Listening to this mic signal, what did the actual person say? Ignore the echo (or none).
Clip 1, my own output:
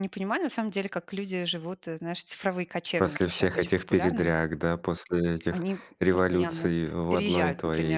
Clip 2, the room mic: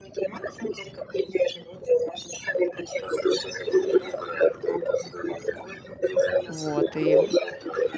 Вот, и,